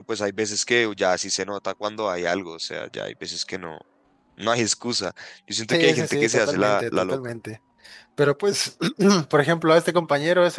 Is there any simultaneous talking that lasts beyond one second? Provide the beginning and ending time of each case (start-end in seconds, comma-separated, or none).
5.7-7.2